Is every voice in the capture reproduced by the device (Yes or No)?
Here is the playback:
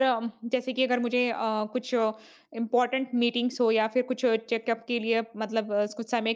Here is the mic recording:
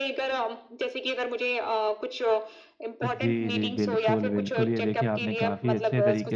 No